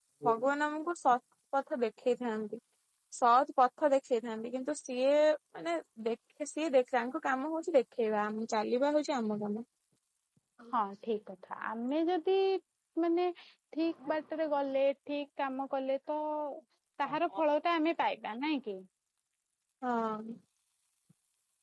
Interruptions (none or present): none